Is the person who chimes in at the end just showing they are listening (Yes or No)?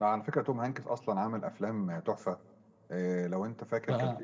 Yes